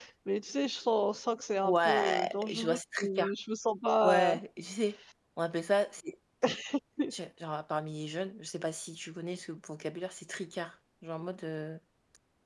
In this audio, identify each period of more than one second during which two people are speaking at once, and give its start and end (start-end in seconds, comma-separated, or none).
1.6-3.3